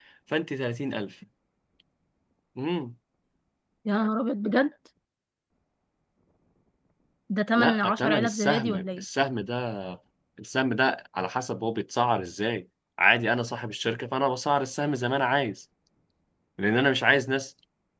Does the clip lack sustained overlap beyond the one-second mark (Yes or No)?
No